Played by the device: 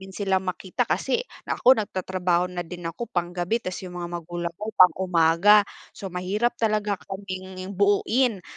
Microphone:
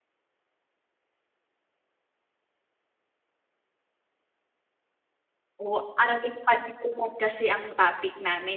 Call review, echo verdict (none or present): none